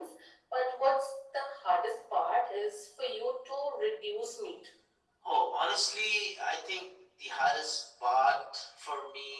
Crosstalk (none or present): none